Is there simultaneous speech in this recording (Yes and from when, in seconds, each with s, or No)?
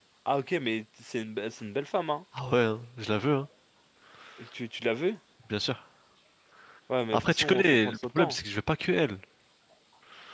Yes, from 7.1 s